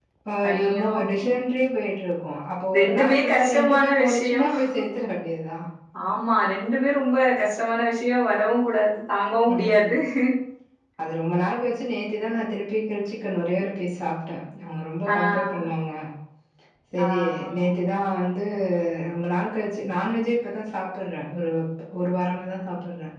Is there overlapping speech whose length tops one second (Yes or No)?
Yes